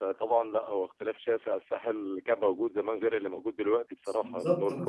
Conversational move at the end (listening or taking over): taking over